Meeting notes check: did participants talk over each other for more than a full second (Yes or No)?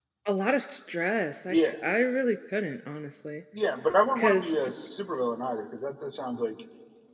No